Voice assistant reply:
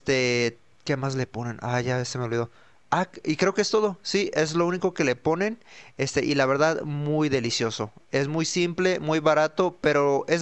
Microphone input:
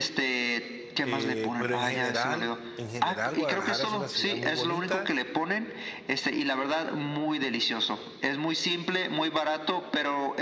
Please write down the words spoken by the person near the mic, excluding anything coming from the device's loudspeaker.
Eh, pero en general, en general, Guadalajara es una ciudad muy bonita.

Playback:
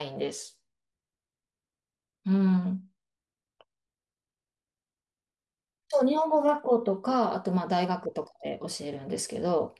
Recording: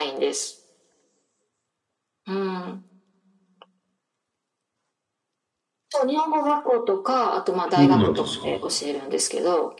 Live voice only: そうなんですか。

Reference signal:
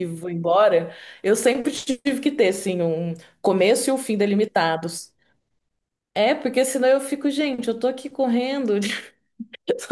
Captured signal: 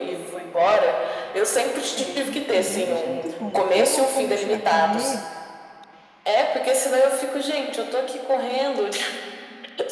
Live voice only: É verdade, eu achei muito bom. Eu comecei a correr

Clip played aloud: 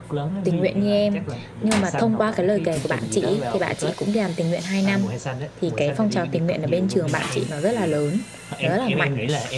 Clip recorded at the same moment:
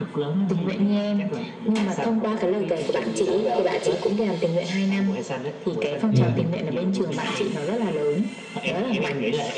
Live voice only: Dạ.

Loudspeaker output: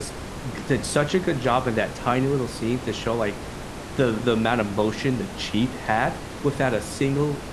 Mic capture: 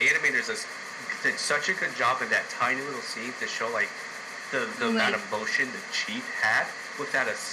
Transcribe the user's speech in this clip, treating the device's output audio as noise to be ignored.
So like,

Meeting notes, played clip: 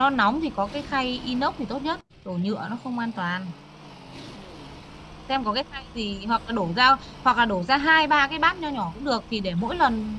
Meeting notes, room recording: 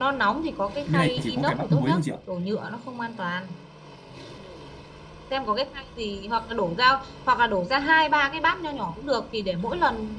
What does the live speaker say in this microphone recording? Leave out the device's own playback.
bên này chỉ có cải bắp muối thôi chị ạ

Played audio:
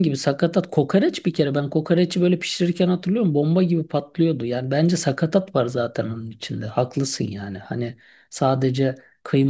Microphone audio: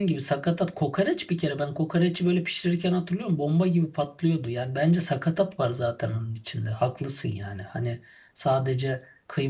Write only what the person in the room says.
none

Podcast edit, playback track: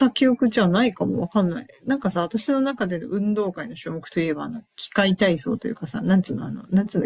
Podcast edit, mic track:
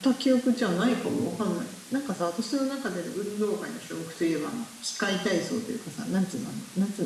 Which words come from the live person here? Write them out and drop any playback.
none

